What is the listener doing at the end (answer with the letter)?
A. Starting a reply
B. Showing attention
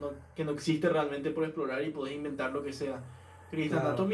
B